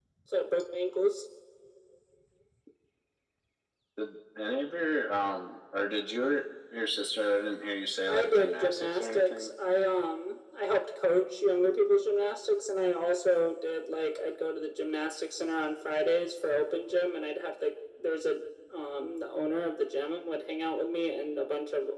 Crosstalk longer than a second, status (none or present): present